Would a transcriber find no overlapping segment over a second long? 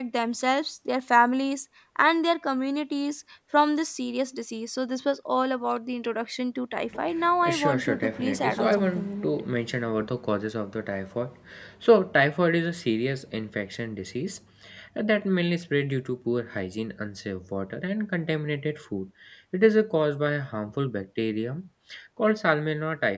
No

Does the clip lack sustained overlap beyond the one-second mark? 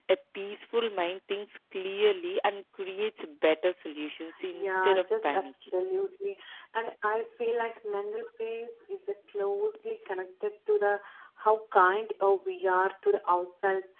No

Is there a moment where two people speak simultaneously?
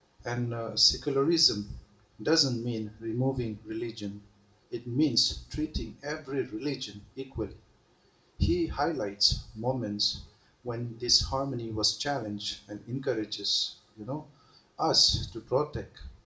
No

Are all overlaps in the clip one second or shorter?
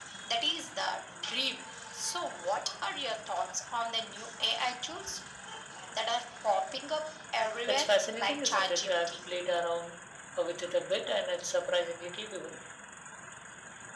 No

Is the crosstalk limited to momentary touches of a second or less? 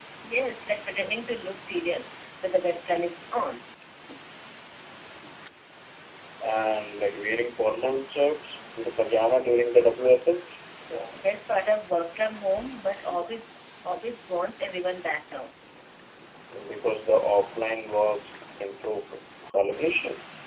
Yes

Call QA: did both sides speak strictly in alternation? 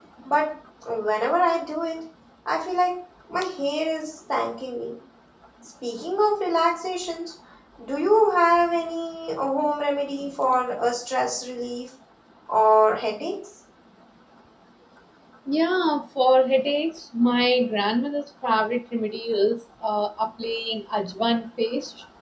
Yes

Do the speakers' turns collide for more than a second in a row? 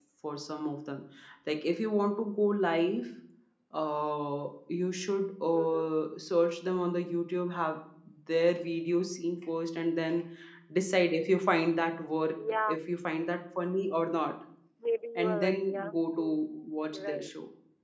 Yes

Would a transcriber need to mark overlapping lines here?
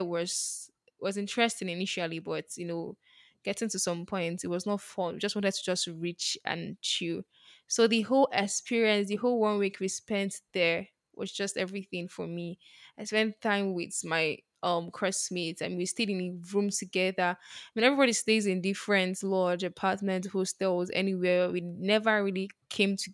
No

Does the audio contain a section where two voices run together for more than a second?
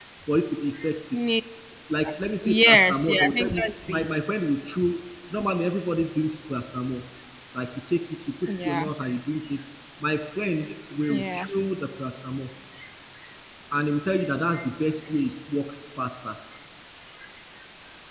Yes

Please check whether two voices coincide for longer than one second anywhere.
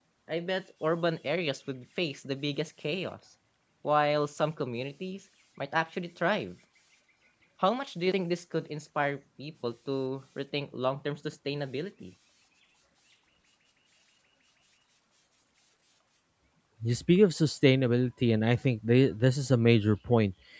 No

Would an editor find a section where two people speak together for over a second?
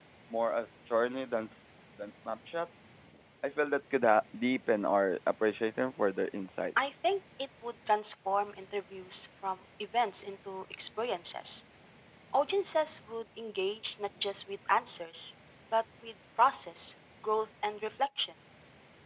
No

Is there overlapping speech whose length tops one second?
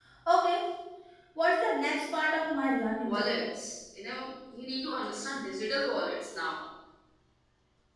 No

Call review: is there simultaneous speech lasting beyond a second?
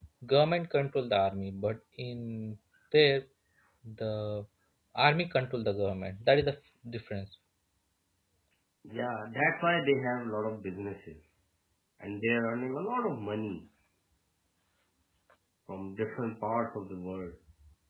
No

